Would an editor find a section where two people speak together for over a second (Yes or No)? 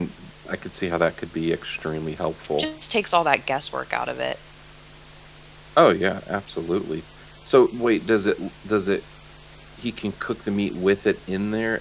No